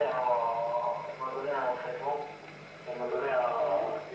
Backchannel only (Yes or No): Yes